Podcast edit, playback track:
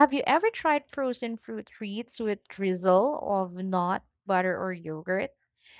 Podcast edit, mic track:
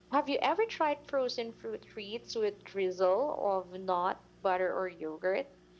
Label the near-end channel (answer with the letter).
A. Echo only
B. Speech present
A